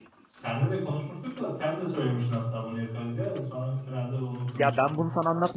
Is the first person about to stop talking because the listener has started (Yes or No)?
Yes